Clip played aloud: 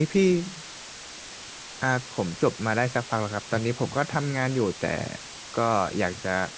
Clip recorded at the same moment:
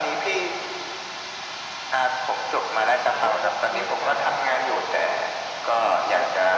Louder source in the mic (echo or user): echo